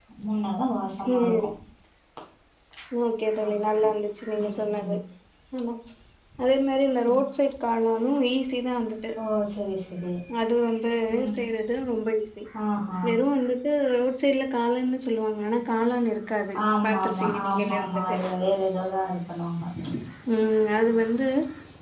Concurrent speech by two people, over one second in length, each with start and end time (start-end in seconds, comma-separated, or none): 16.8-18.1